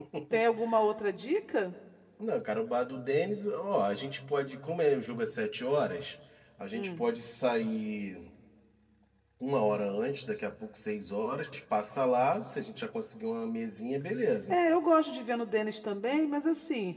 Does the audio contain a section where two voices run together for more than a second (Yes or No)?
No